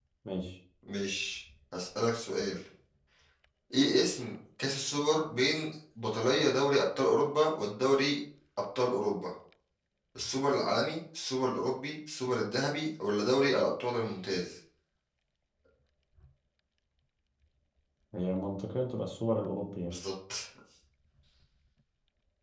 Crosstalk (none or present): none